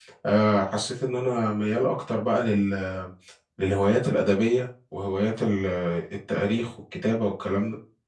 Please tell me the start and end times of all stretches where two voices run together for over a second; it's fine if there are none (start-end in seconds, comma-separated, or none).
none